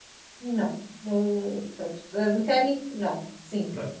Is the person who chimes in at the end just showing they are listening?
No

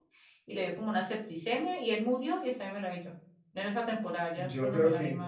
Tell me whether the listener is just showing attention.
No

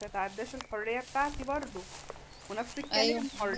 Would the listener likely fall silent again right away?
Yes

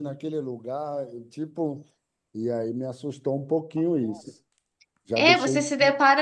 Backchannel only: No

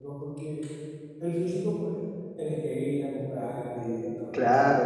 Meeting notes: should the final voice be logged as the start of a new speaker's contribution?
Yes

